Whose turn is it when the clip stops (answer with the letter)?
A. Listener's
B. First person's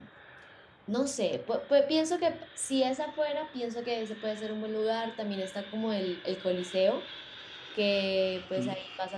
B